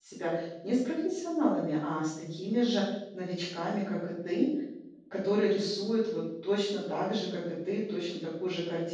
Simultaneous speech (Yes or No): No